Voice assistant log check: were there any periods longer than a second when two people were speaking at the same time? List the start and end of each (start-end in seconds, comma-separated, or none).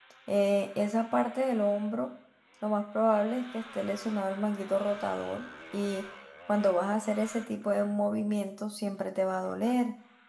none